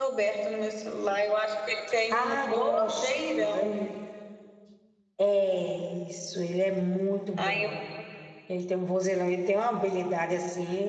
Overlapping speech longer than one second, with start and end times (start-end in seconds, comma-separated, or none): 2.1-3.9